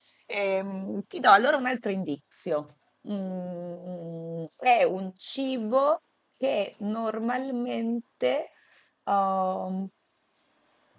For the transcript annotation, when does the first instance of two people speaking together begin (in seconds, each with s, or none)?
none